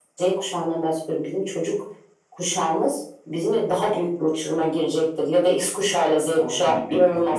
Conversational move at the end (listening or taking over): taking over